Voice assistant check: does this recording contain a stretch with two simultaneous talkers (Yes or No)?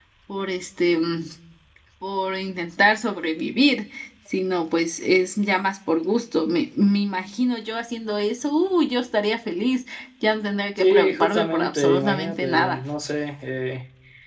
Yes